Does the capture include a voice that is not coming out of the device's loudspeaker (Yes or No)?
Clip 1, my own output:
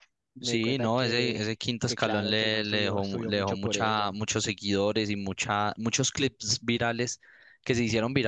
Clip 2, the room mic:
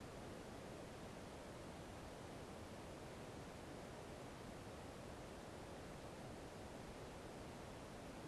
No